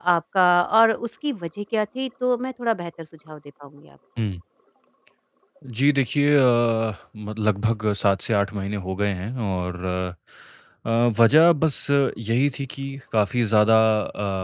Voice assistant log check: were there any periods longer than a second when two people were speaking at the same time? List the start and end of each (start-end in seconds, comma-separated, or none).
none